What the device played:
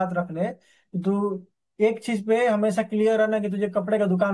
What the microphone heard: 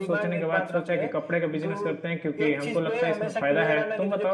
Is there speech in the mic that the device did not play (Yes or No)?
Yes